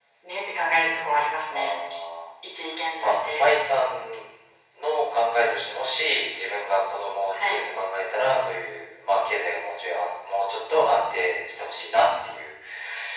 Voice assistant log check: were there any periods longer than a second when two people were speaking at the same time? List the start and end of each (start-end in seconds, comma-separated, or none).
none